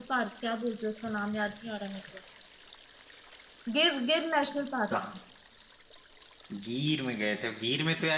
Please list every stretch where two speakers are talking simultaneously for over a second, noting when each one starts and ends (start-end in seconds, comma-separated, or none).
none